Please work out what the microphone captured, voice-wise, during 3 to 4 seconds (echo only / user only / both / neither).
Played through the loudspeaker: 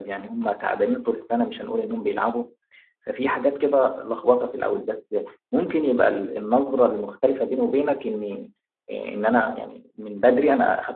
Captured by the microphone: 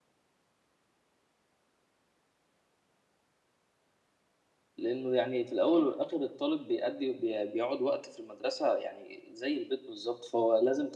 neither